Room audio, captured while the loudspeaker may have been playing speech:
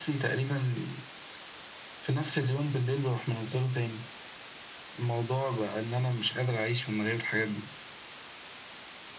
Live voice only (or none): none